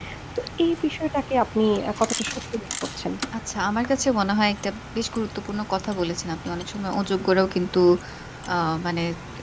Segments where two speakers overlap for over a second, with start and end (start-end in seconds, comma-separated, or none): none